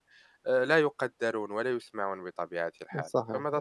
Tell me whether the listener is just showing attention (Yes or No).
No